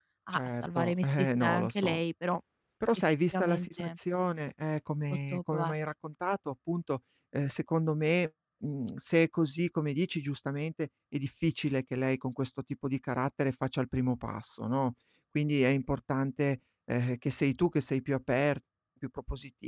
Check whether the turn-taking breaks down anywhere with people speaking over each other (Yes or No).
Yes